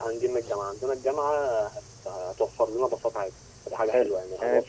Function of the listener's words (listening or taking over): taking over